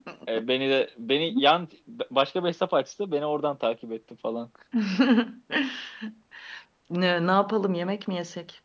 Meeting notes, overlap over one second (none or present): none